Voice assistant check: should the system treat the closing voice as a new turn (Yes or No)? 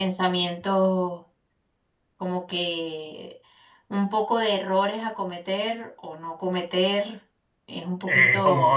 Yes